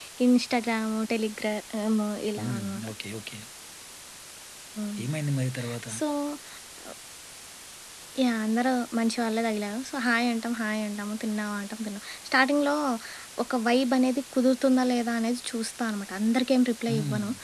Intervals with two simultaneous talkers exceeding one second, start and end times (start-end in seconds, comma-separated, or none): none